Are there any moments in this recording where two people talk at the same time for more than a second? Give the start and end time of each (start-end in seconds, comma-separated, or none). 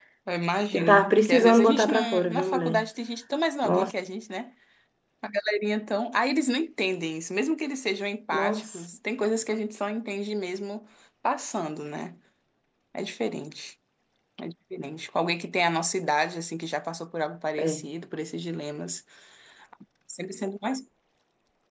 0.7-2.8